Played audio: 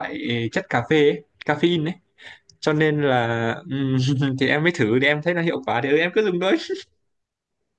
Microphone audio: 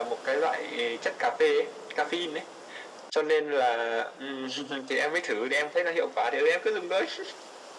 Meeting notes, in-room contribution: none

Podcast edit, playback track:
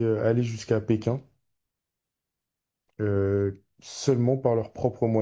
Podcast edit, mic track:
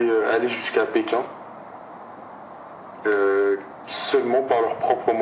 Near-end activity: none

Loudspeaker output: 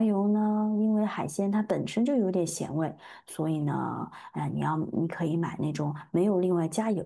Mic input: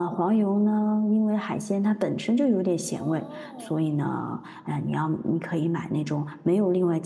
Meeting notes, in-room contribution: present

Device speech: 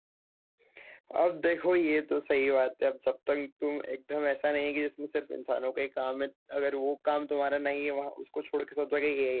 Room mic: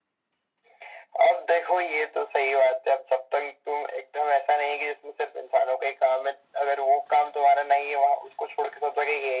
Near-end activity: none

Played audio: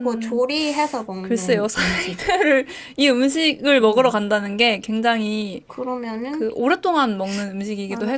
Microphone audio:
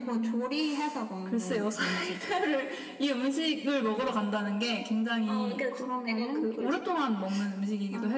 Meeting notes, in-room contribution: present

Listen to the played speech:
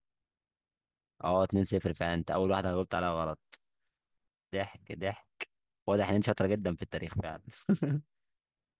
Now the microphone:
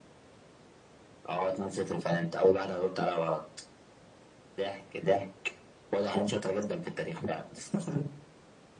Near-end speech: none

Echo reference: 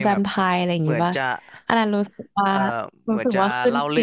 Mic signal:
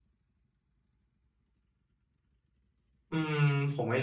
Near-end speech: present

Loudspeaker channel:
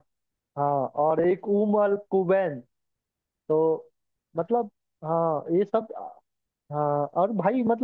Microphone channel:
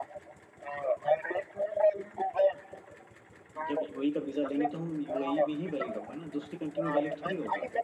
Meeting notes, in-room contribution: present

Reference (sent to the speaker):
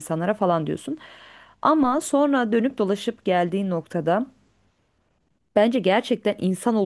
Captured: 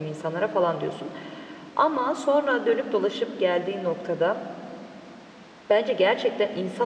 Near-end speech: none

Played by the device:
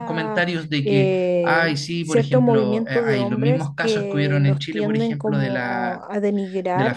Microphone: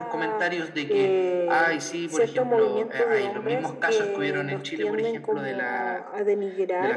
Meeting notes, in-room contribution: none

